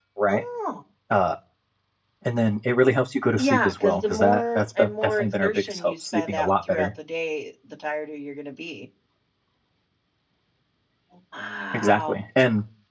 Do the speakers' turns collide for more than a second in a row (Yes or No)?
Yes